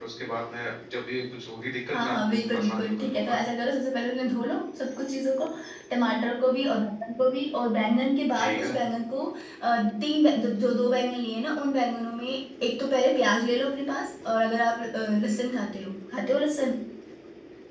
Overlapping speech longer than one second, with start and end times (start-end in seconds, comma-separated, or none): 1.9-3.4